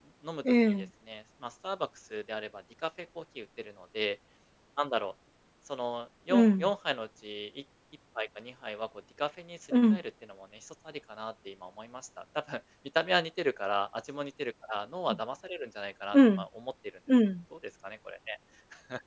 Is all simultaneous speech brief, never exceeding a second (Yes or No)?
Yes